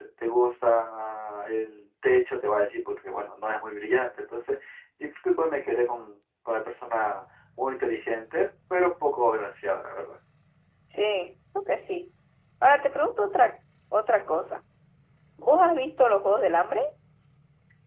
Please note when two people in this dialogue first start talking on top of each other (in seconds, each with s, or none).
none